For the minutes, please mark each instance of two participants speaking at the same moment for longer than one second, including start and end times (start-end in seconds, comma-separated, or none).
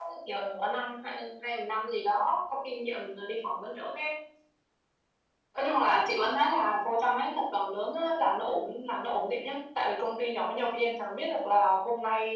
none